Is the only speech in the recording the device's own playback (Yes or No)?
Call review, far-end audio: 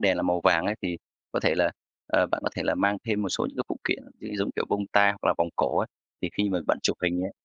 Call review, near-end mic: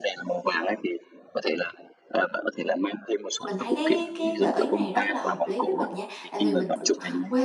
No